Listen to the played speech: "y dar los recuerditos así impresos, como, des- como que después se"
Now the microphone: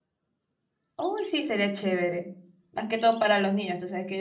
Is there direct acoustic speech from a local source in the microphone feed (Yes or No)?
Yes